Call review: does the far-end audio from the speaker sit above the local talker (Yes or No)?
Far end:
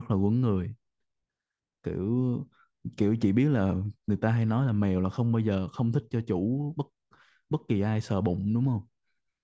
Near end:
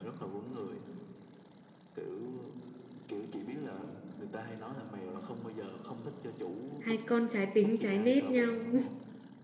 No